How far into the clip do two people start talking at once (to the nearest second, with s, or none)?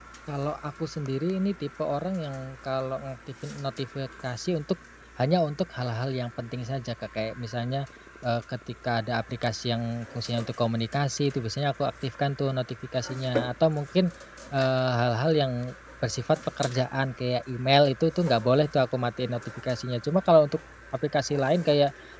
none